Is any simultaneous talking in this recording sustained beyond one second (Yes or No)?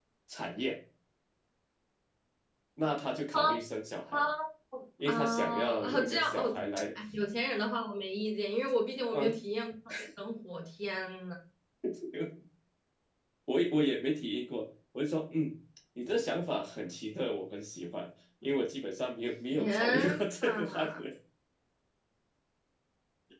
Yes